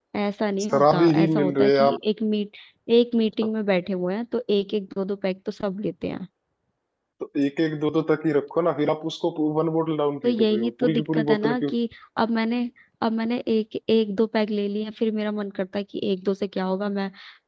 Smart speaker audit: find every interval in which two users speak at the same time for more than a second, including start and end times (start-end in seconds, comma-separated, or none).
0.7-2.0, 10.2-11.6